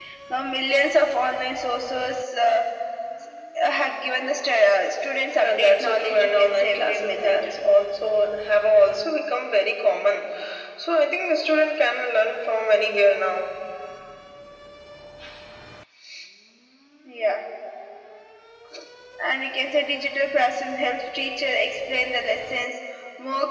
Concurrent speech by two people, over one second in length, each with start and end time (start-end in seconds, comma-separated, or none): 5.3-7.4